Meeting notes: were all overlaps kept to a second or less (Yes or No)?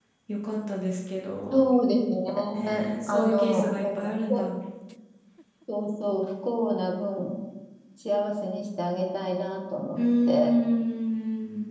No